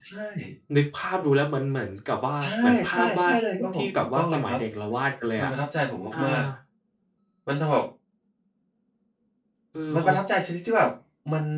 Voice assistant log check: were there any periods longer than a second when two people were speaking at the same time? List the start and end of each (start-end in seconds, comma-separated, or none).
2.4-4.6